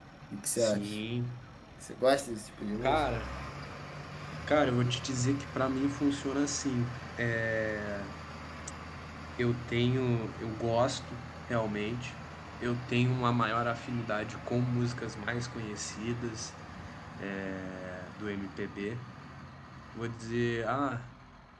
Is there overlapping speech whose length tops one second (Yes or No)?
No